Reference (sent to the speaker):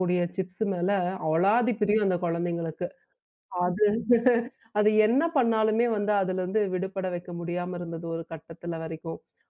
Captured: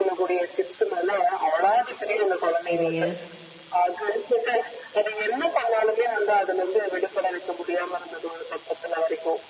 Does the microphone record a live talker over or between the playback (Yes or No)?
Yes